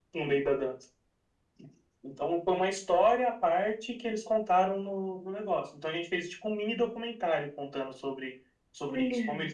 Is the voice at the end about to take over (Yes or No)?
No